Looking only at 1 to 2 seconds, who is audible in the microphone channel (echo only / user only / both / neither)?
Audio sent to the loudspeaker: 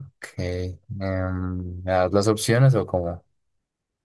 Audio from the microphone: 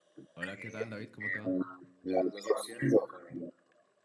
both